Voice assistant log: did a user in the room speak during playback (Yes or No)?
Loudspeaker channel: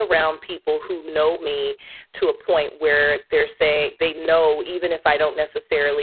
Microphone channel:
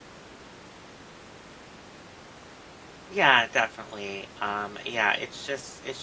Yes